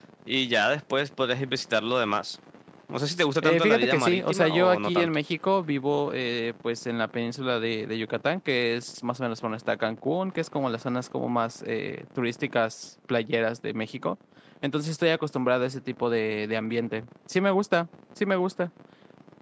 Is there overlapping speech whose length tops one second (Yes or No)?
Yes